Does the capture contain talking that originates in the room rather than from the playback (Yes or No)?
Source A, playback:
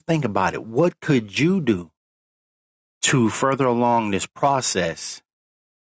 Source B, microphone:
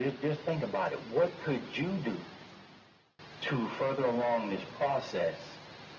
No